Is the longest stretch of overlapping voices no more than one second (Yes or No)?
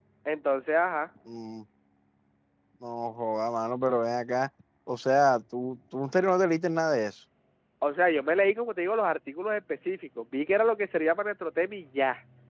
Yes